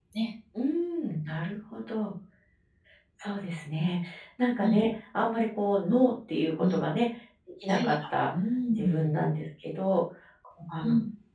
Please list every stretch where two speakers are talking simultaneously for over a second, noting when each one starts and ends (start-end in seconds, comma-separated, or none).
none